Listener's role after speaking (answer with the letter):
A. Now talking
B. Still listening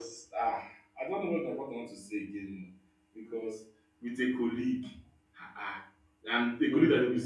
B